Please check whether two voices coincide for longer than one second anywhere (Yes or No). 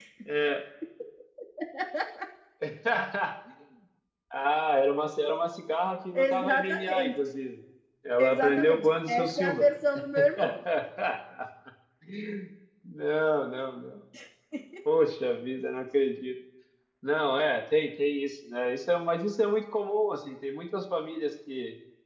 Yes